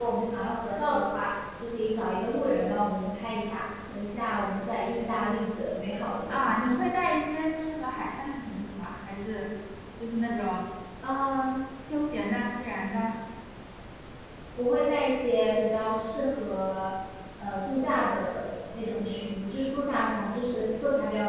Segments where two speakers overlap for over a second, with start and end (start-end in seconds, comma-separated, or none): none